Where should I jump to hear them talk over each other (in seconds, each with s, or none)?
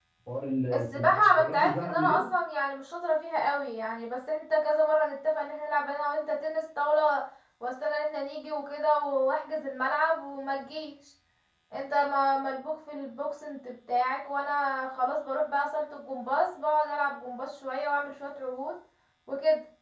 0.7 s